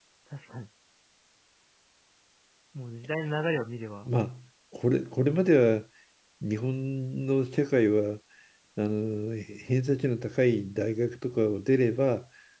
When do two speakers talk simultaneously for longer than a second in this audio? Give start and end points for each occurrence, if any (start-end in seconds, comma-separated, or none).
none